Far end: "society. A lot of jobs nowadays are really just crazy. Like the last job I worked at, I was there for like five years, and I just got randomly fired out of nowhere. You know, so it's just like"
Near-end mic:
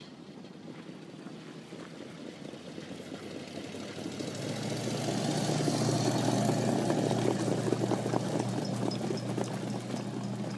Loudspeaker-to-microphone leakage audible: No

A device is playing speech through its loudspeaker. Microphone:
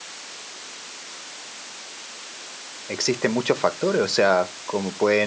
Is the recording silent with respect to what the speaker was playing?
Yes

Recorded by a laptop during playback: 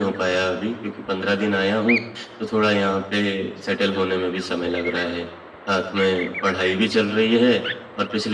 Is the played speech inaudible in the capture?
No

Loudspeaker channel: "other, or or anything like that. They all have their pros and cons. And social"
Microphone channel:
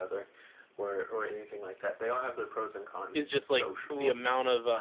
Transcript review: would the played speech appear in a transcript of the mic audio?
Yes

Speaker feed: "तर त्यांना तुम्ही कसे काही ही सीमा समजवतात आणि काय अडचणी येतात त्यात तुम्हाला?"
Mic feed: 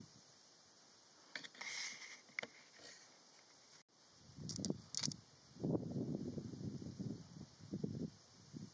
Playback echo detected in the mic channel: No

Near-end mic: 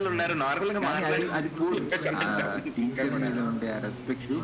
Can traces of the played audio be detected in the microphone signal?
Yes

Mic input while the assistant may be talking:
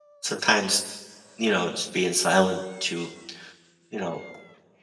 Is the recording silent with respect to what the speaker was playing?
Yes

